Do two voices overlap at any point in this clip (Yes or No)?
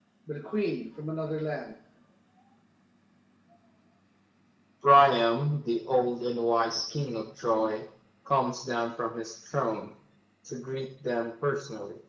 No